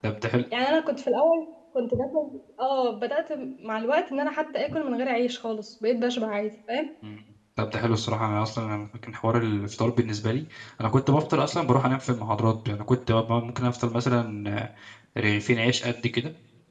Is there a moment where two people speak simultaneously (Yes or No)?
No